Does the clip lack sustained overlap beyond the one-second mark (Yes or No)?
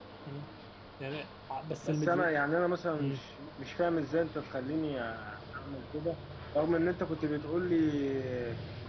Yes